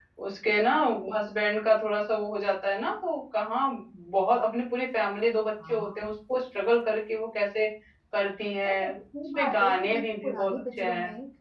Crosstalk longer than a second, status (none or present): present